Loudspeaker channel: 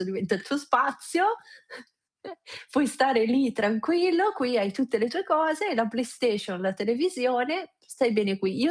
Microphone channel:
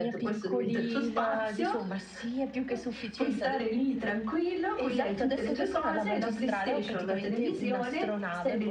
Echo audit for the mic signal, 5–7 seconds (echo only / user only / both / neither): both